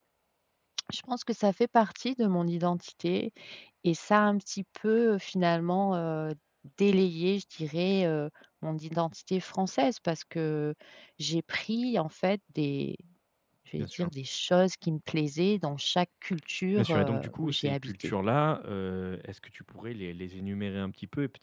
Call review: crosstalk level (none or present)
present